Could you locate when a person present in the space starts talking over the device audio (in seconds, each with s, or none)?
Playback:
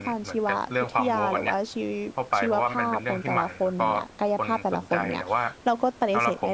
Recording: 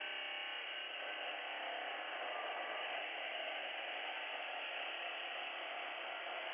none